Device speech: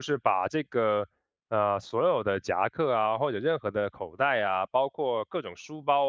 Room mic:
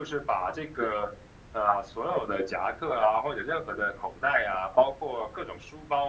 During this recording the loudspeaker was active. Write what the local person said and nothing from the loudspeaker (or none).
none